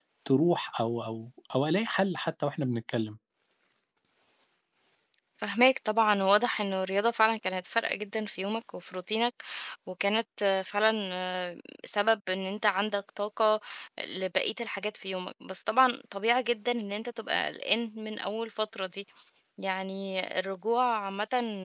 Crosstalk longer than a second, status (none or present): none